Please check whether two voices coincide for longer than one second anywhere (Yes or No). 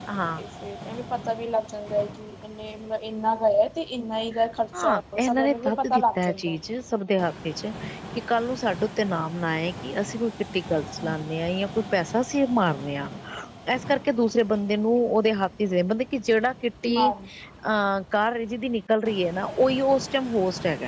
Yes